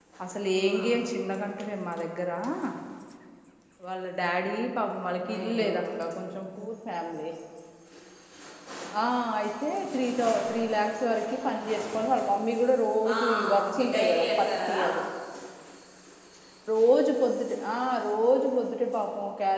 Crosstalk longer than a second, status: present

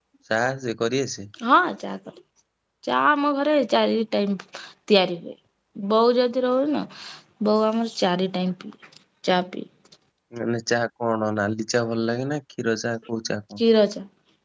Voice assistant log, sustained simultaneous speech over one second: none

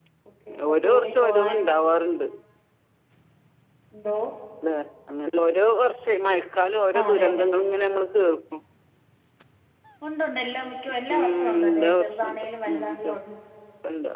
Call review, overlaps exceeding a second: present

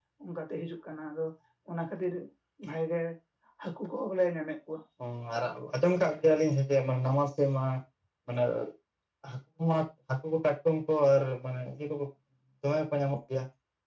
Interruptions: none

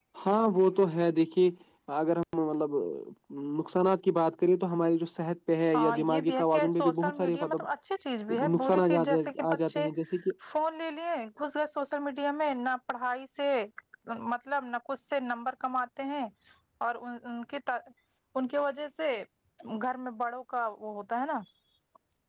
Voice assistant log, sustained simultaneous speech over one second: present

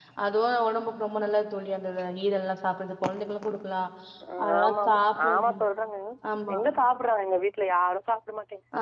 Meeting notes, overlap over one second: none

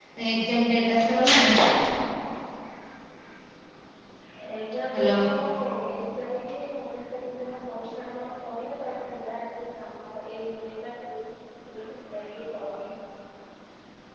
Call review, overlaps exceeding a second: none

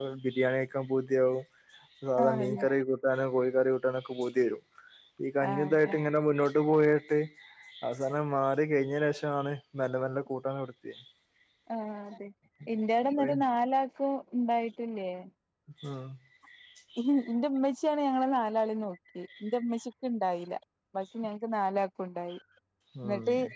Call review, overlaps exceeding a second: none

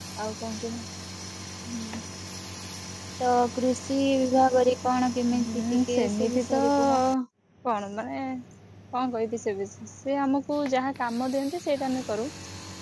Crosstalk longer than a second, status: present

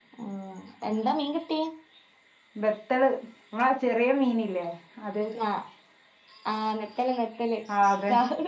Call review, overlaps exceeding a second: none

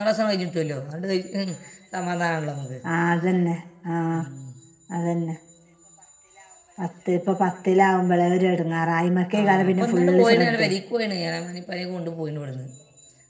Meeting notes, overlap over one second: present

